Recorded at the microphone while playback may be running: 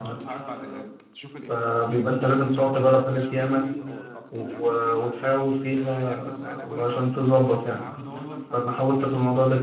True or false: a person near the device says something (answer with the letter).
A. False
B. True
B